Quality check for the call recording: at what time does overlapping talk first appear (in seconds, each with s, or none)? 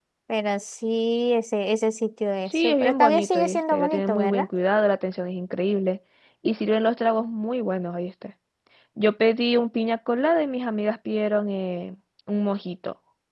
2.5 s